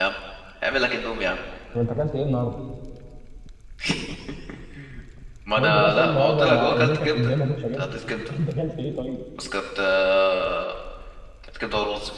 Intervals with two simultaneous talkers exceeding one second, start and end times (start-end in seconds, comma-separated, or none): 5.5-7.3